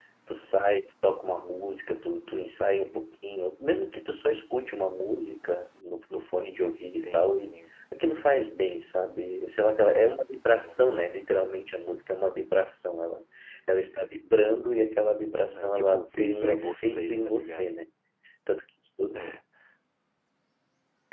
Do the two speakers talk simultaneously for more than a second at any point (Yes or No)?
Yes